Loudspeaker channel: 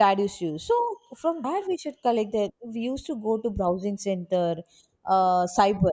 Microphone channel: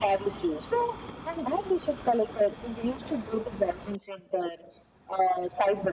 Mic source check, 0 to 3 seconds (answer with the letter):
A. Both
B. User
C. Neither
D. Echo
D